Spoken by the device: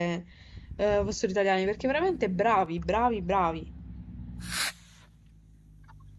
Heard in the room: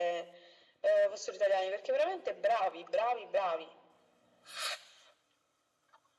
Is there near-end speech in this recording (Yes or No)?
No